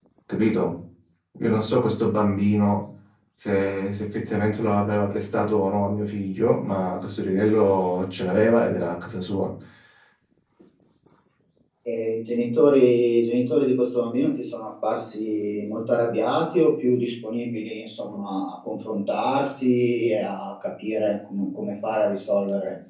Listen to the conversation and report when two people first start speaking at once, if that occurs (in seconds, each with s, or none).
none